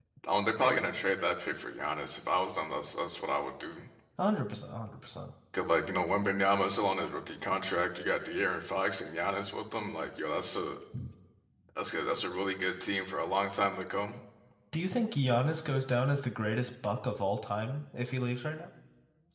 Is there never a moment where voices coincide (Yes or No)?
Yes